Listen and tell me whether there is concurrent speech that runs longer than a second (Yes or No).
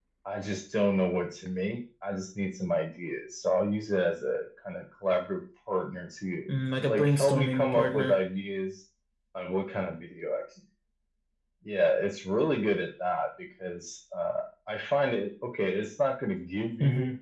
Yes